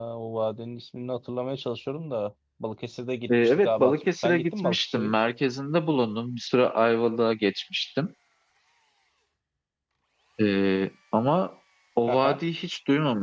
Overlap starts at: 3.3 s

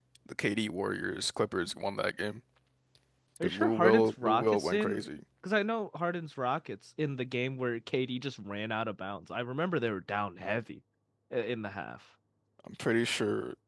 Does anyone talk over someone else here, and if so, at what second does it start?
3.4 s

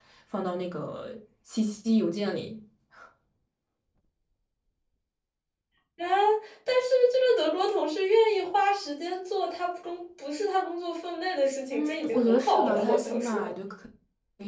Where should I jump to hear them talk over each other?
11.7 s

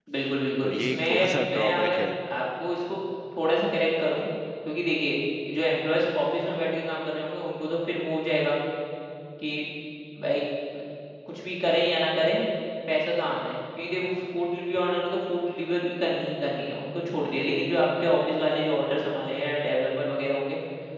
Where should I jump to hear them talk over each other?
0.6 s

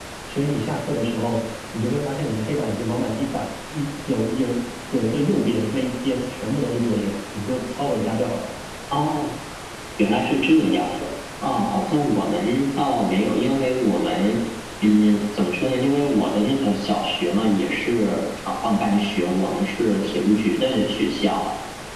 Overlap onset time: none

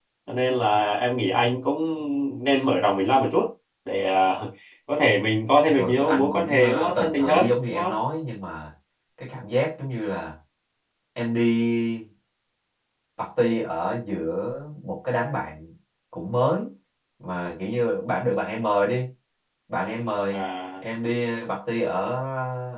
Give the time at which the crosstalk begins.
5.7 s

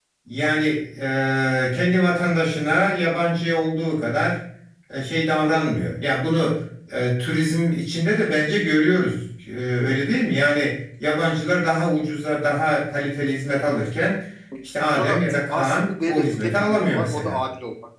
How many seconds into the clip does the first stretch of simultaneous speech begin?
14.9 s

